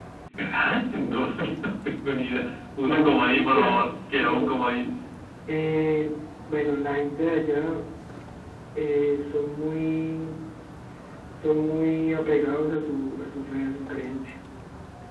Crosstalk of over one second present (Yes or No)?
Yes